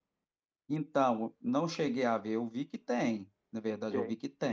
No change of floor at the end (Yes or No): Yes